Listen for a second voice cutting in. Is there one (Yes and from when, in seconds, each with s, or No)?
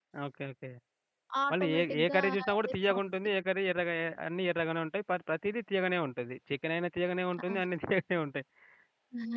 Yes, from 1.5 s